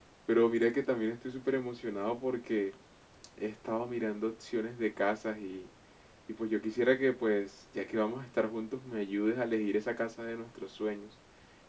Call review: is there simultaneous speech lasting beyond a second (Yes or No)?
No